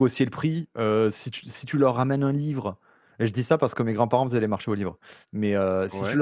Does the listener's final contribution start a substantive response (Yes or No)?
No